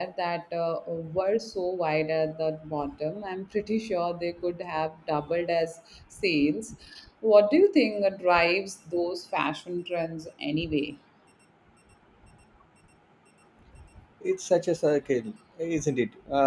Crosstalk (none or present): none